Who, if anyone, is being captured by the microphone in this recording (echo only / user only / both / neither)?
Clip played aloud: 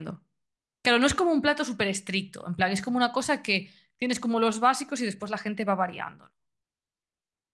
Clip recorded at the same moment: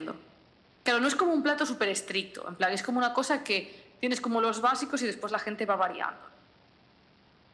echo only